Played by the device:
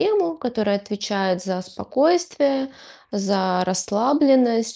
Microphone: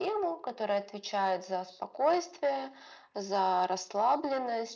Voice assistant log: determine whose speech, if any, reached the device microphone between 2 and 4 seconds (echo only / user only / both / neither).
echo only